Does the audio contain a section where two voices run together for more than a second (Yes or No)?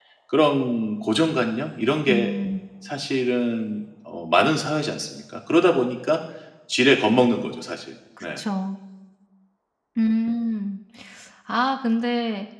No